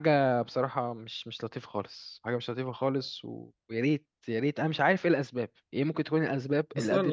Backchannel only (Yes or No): No